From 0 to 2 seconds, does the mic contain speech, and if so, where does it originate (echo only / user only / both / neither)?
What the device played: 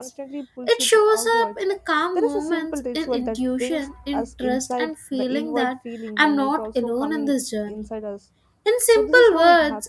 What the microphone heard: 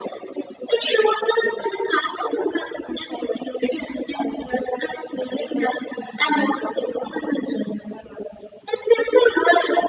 echo only